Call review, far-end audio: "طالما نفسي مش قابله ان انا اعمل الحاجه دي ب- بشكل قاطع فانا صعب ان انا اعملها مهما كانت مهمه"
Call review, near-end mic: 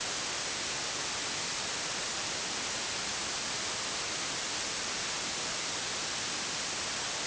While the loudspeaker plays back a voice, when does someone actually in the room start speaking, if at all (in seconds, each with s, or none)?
none